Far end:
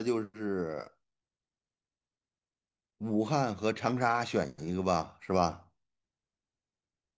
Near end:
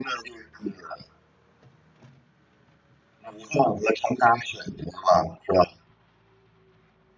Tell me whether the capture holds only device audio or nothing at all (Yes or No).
Yes